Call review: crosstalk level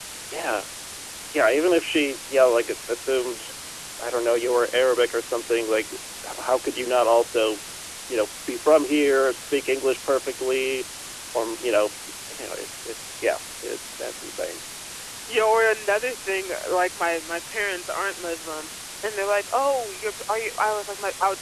none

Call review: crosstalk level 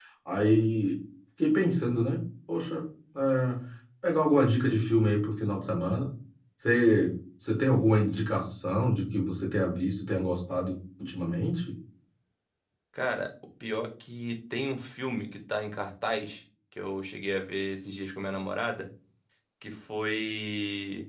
none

